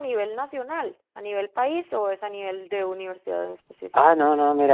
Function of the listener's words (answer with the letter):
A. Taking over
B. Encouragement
A